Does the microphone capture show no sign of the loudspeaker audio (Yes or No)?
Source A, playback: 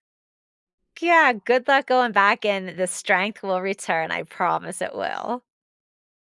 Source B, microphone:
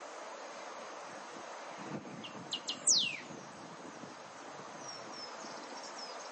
Yes